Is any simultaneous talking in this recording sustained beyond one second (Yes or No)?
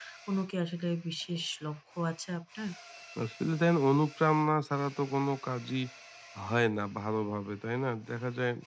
No